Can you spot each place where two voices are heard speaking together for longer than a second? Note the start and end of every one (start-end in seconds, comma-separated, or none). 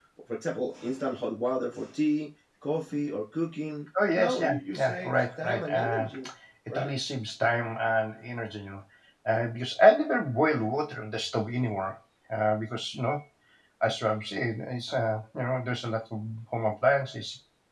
4.1-6.1